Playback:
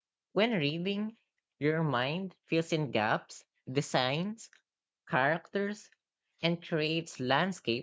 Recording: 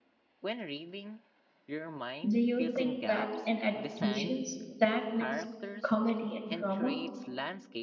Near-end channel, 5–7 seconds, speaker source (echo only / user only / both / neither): both